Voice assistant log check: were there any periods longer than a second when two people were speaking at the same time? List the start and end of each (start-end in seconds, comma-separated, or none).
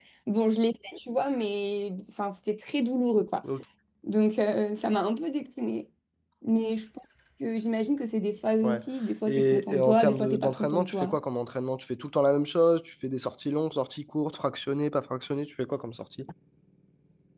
9.3-11.2